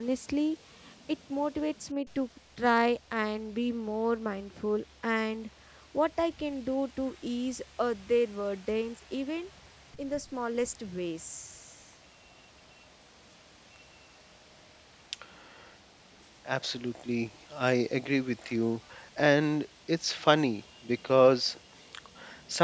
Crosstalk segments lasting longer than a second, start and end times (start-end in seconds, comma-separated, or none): none